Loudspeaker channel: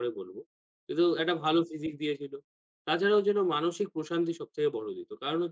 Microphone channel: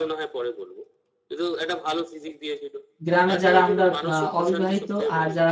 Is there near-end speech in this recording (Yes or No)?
Yes